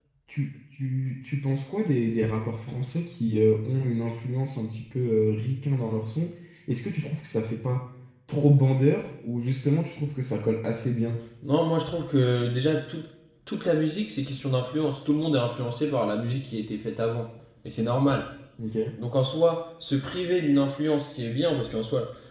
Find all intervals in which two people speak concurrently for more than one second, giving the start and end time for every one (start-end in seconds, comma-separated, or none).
none